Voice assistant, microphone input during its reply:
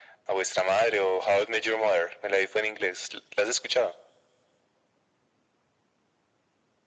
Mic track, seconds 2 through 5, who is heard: echo only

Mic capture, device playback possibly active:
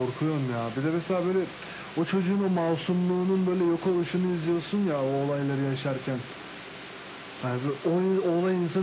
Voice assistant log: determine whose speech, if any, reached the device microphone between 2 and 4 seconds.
echo only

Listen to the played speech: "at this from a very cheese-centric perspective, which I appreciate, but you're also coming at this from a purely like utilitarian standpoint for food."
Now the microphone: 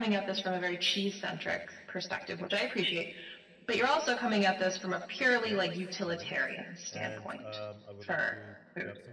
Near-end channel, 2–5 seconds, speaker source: echo only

